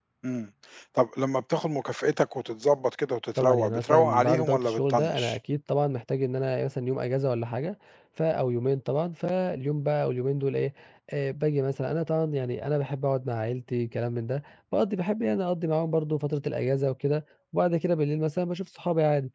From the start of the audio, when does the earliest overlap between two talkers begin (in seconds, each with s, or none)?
3.4 s